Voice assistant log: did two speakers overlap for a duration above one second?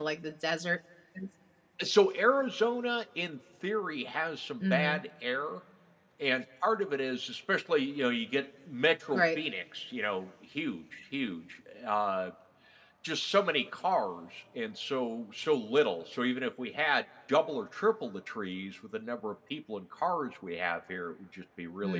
No

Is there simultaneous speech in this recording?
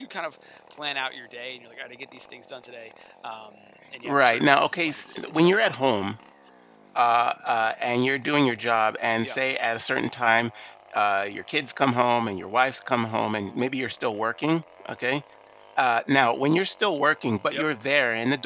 Yes, from 4.0 s

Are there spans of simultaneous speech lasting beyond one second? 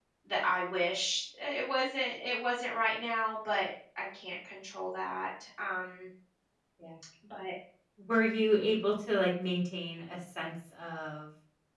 No

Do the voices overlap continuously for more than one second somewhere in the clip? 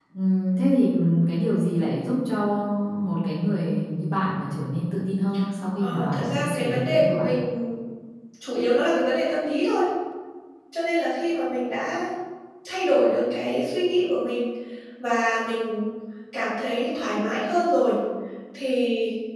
Yes, from 5.8 s

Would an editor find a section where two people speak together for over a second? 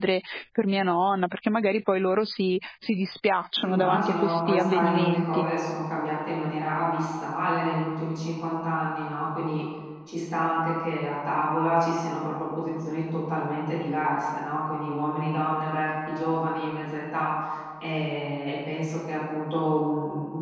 Yes, from 3.6 s

